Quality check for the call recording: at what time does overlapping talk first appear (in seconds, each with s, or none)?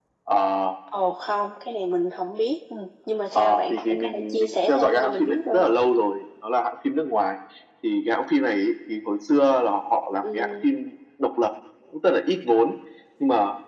3.4 s